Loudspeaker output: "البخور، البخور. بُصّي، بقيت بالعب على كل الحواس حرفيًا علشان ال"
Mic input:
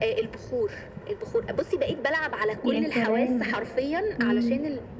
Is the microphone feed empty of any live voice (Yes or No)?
No